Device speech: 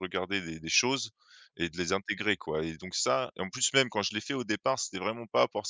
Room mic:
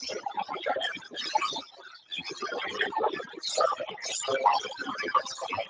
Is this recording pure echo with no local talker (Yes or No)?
Yes